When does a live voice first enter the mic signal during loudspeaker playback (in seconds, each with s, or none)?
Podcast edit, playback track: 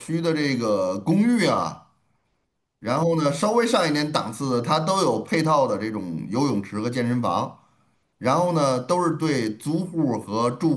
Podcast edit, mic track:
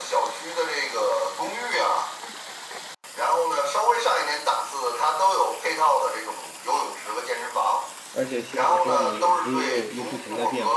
8.1 s